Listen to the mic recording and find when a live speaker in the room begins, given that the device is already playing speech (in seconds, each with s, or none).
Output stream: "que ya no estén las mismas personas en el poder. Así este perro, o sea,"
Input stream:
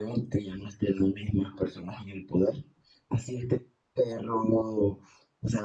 none